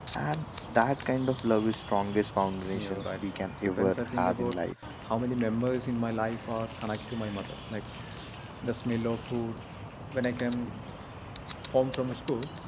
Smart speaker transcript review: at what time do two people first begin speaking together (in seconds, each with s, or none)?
2.7 s